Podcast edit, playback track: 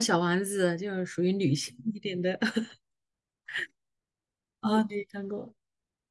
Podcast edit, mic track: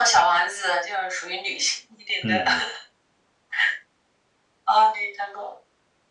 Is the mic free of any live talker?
No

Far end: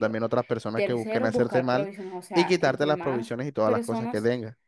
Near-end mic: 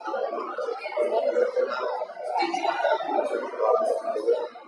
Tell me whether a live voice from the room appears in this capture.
No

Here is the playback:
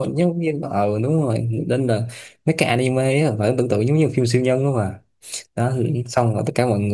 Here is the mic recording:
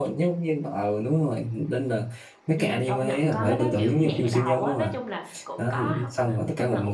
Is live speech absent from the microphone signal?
No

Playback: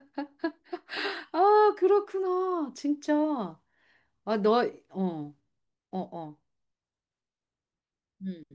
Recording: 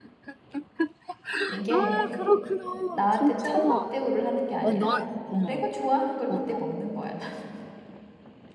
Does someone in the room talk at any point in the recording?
Yes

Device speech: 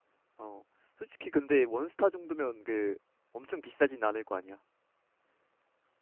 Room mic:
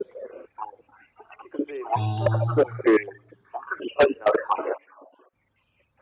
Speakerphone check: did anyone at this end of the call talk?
Yes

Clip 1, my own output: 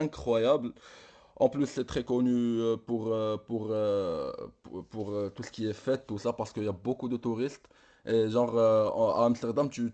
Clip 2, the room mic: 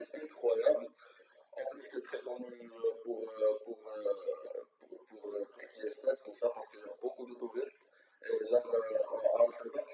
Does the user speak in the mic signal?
No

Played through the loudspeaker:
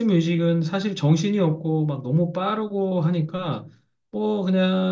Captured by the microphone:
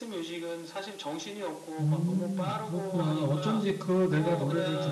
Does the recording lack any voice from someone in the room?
No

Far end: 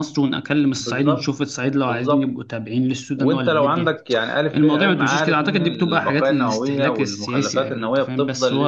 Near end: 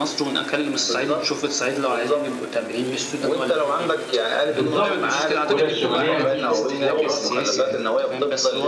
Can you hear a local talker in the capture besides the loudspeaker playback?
Yes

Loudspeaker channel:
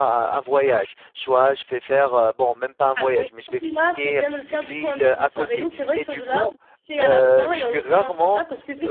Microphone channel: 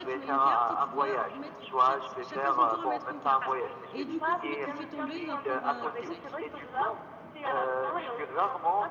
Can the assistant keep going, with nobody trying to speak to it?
No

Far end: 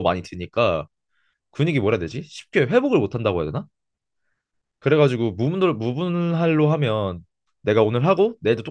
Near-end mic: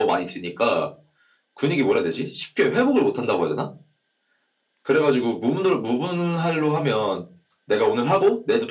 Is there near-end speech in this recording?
No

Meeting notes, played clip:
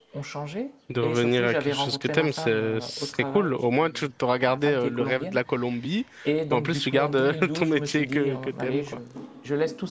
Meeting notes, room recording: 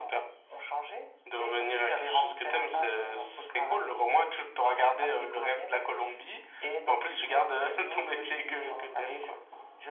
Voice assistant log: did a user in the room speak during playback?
No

